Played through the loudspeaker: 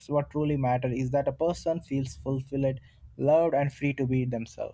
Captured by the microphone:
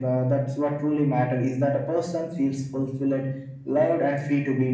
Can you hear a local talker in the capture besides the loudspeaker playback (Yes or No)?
No